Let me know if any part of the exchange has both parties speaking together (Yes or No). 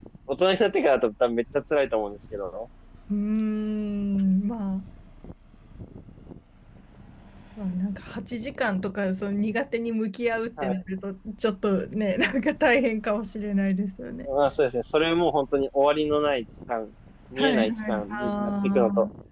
Yes